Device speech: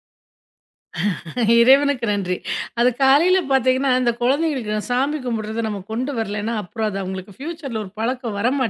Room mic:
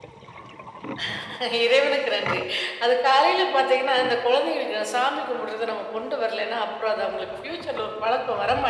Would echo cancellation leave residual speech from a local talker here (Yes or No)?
No